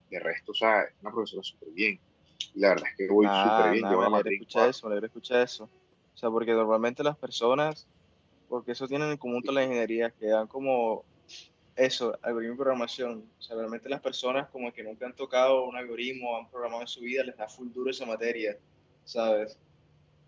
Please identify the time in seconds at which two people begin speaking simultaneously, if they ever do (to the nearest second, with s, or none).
3 s